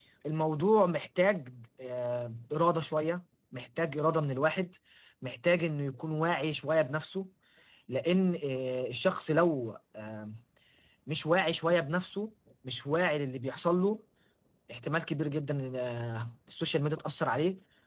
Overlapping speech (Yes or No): No